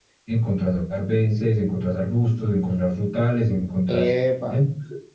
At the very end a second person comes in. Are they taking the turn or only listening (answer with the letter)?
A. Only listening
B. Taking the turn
A